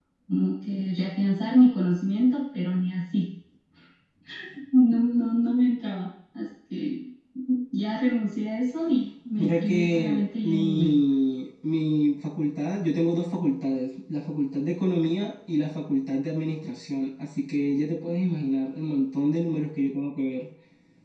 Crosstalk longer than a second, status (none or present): present